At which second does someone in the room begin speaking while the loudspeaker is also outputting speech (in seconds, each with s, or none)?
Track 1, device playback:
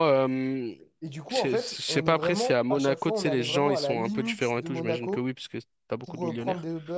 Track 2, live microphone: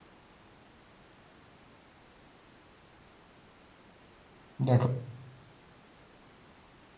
4.6 s